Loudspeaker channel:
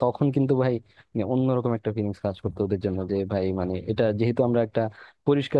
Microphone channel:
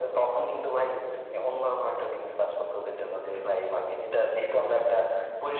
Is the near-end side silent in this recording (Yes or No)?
Yes